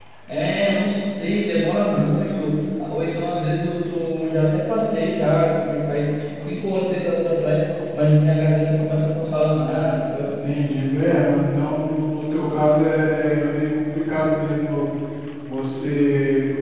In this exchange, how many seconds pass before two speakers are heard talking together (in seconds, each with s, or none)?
none